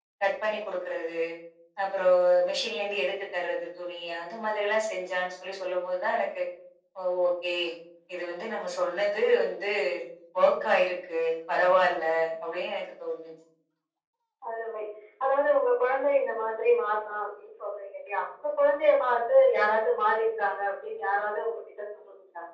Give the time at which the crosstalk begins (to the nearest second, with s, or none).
none